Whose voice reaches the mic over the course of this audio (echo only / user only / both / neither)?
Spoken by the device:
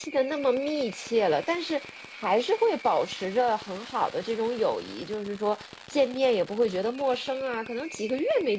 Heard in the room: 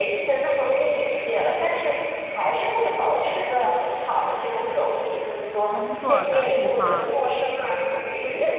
both